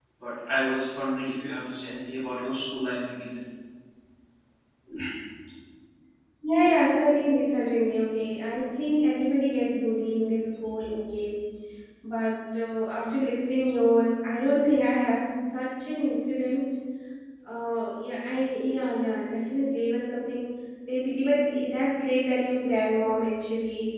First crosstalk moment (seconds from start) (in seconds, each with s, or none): none